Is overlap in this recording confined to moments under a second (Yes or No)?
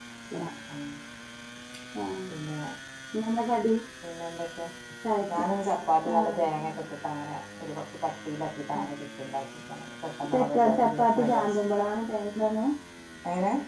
No